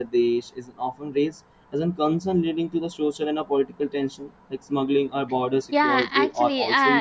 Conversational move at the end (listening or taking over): taking over